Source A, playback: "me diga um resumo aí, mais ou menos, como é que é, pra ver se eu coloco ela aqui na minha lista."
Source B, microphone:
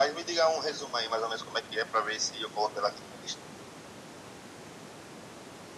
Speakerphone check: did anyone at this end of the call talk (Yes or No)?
No